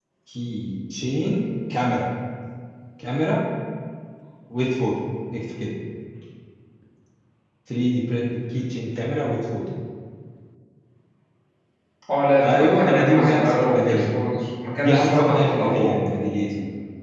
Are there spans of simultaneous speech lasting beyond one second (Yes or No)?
Yes